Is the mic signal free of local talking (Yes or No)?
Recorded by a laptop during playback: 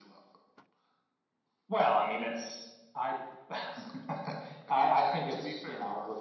Yes